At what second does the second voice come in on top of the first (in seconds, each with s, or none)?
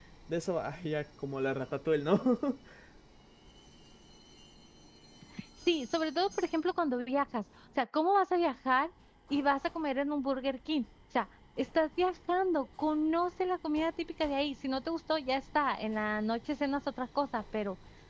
none